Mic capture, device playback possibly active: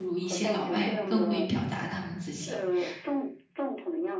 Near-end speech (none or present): present